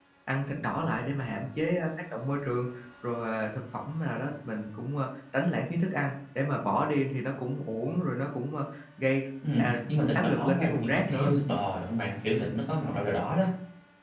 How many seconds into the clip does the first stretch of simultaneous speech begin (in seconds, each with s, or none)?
9.4 s